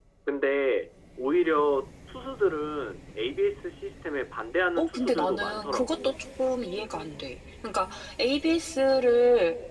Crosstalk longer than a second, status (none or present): present